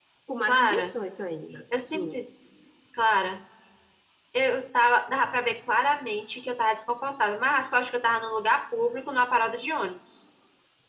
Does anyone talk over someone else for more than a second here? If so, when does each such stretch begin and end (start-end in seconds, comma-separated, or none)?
none